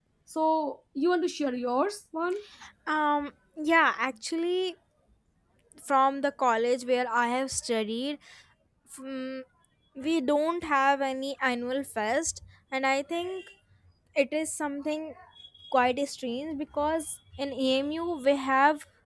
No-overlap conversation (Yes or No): Yes